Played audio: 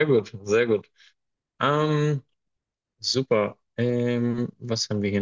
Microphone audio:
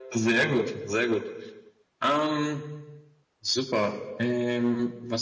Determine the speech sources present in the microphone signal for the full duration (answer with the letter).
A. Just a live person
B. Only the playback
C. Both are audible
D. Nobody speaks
B